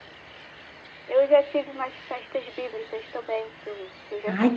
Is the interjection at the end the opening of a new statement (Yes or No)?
Yes